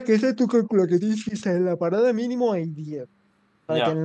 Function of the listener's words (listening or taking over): listening